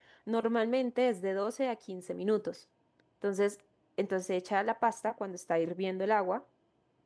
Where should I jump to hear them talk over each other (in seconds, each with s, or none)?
none